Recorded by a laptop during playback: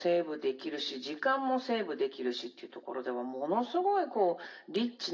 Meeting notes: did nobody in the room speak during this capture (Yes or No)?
Yes